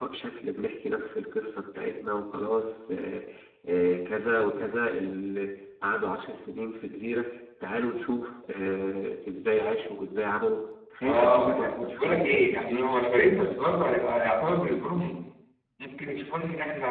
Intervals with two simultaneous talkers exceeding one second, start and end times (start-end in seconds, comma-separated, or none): 11.0-12.5